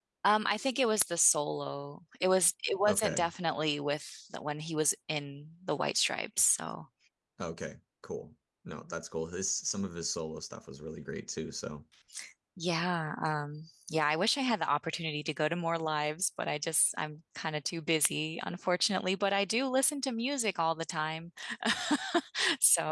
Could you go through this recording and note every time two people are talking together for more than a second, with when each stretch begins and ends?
none

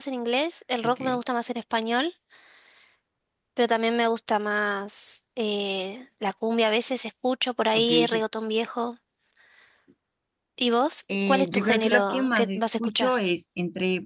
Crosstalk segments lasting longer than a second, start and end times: 11.3-13.1

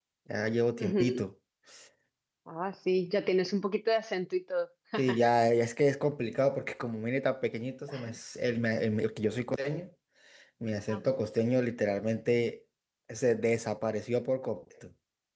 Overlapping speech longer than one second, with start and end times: none

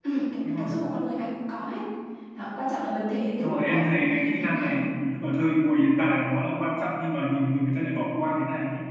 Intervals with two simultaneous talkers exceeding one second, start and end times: 3.4-4.9

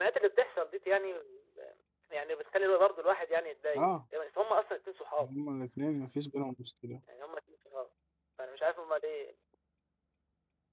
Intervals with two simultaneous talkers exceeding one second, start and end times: none

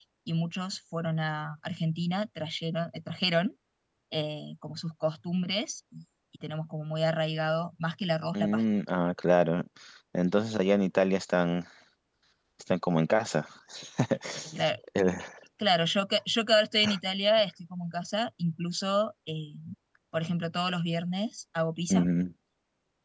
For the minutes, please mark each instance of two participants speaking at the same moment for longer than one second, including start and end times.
none

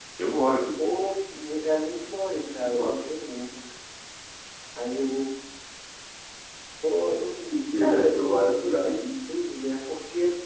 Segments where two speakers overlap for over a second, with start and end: 7.8-9.0

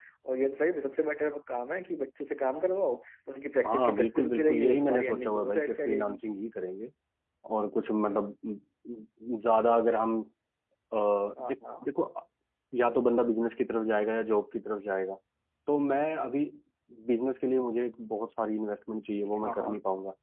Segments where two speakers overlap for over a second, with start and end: 3.7-6.2

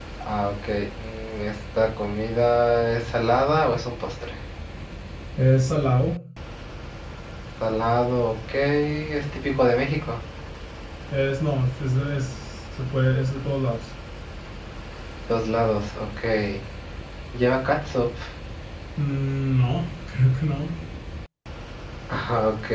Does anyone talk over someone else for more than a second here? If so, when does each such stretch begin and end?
none

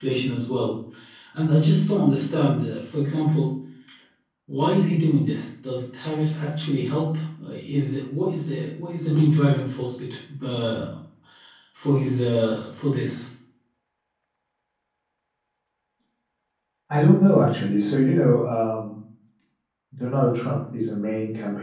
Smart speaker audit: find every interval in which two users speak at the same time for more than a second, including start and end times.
none

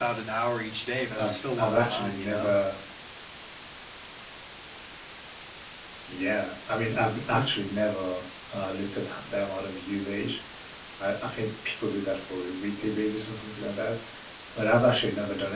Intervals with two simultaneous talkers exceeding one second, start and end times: 1.2-2.5

